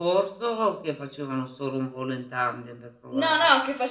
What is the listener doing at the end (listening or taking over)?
taking over